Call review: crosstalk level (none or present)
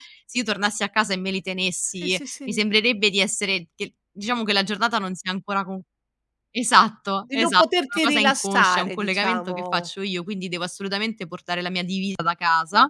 present